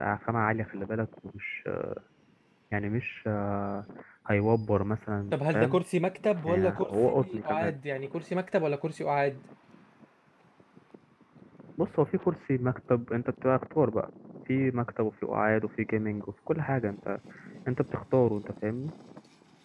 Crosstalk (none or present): present